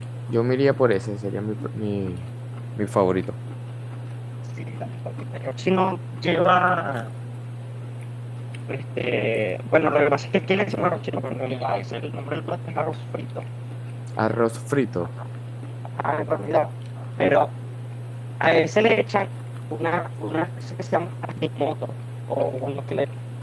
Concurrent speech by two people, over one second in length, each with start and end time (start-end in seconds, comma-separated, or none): none